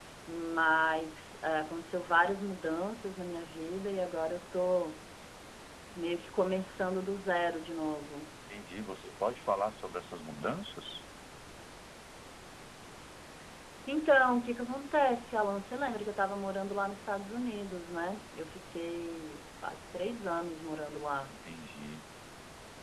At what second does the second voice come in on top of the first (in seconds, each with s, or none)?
none